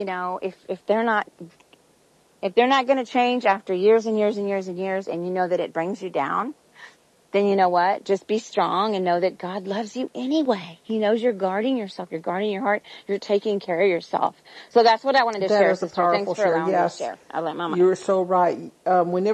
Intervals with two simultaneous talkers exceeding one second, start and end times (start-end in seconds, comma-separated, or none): 15.4-17.1